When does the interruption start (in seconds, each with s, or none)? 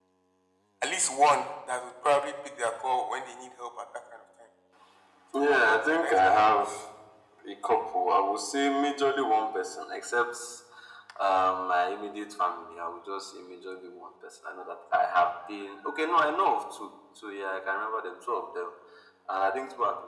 5.3 s